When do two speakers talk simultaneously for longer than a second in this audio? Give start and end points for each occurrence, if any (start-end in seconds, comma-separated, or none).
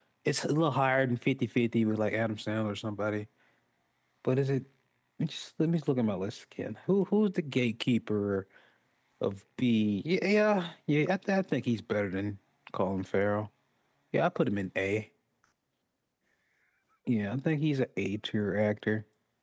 none